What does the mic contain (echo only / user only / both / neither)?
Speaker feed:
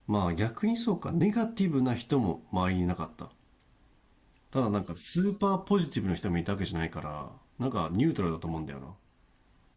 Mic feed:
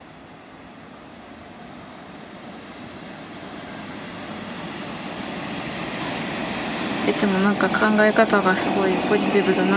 user only